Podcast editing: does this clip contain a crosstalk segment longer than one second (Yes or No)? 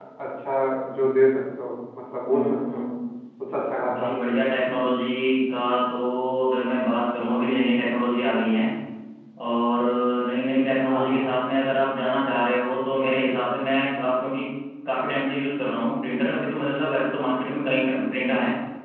No